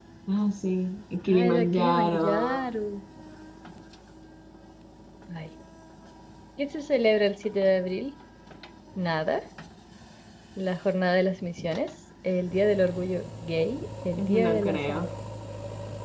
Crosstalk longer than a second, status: present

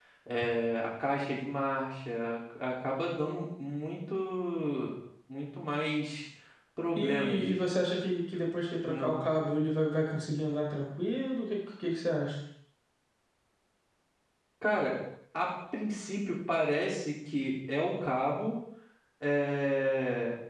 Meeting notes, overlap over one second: none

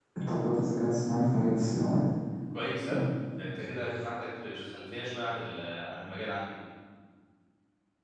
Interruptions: none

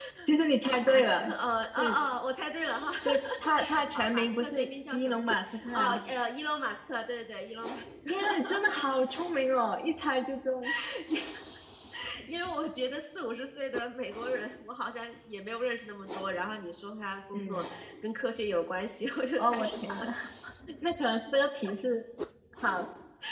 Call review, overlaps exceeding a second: present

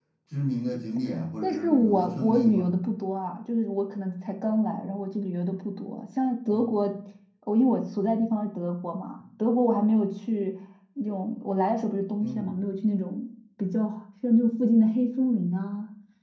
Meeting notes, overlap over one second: present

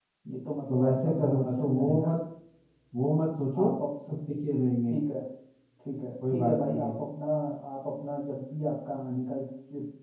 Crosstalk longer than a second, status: present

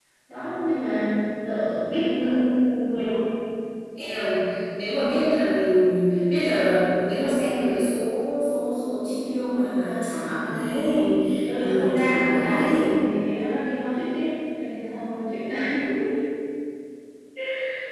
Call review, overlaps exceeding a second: present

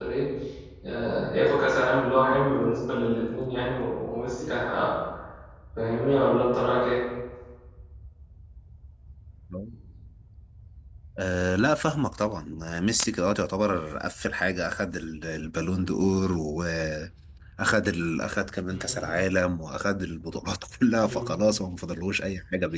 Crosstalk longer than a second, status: none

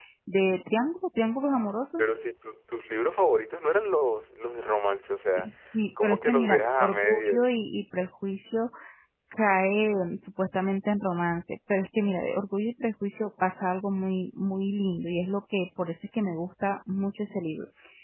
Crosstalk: present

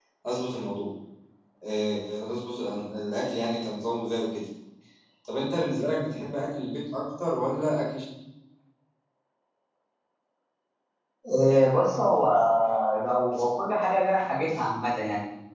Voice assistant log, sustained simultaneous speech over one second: none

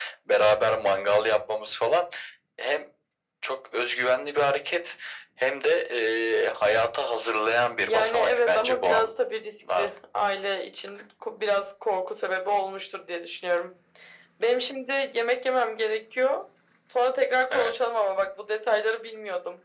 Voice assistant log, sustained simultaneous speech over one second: present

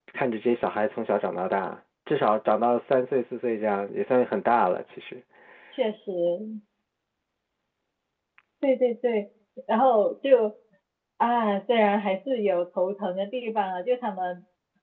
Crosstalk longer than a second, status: none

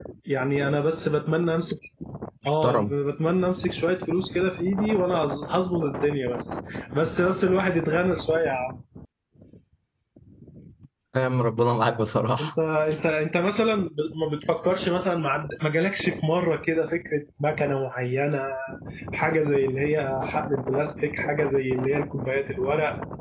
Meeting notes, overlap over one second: none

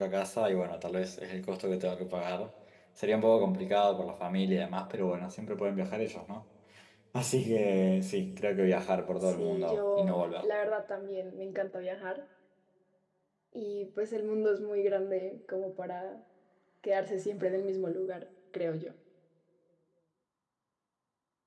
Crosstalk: present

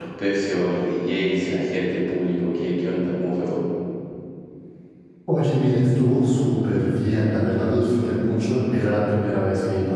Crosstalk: none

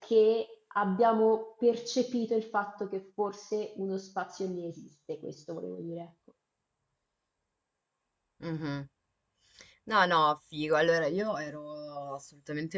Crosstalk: none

